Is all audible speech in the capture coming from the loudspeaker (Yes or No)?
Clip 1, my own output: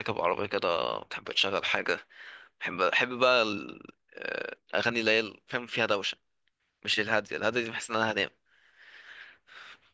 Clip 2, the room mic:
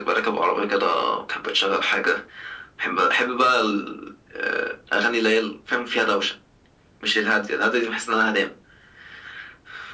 Yes